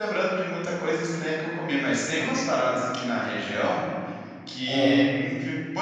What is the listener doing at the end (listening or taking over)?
listening